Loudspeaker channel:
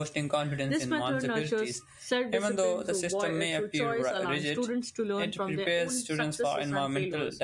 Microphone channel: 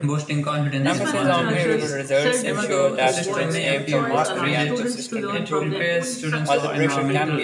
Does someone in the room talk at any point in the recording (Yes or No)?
Yes